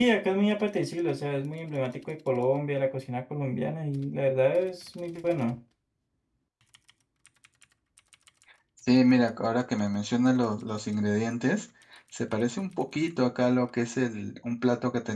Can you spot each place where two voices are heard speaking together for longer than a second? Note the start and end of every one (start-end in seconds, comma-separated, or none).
none